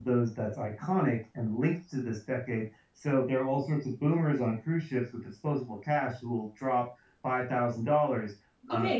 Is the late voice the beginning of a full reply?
Yes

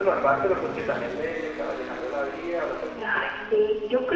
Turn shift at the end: Yes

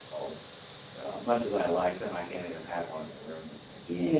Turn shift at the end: Yes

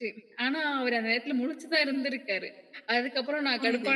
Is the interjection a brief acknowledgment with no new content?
Yes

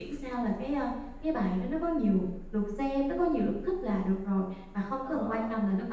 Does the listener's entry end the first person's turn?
No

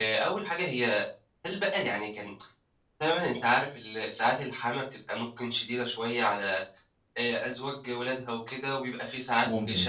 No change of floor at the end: Yes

